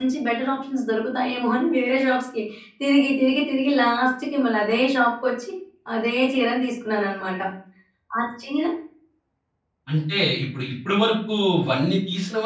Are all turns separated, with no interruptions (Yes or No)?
Yes